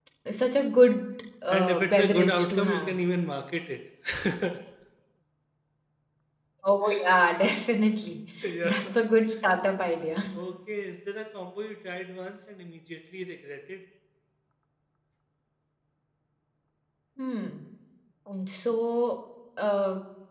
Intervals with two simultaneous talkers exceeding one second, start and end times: 1.5-3.0

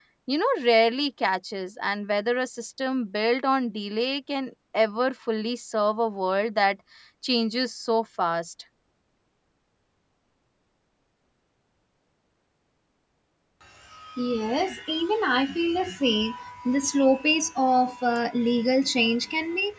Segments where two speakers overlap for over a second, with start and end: none

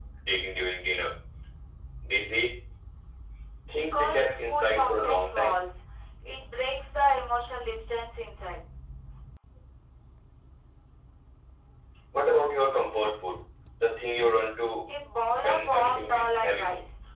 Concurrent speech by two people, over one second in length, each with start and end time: 3.7-5.6, 15.4-16.6

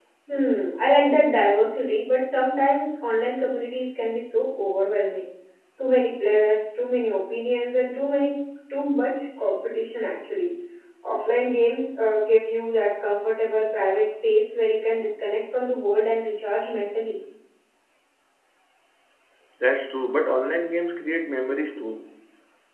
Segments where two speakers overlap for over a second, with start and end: none

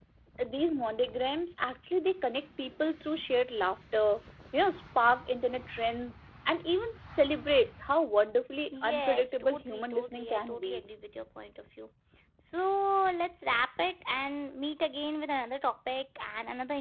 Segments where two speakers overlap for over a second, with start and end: 8.8-10.9

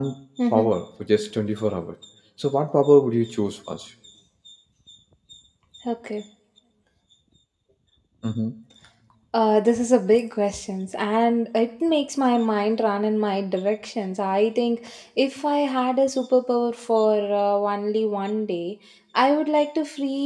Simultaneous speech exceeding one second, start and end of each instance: none

